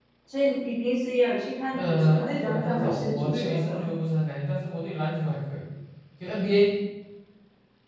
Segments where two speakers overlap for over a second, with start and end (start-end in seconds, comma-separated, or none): 1.7-3.8